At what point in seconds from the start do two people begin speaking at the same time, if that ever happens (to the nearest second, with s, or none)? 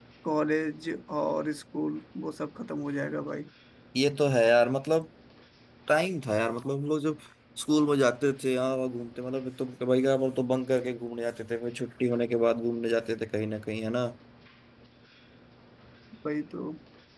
none